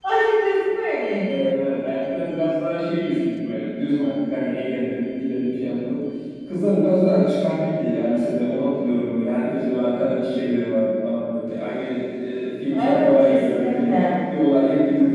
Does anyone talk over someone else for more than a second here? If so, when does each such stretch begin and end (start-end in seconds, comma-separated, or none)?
12.7-14.1